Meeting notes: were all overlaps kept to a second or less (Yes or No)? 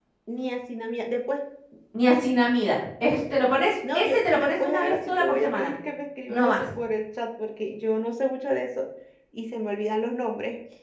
No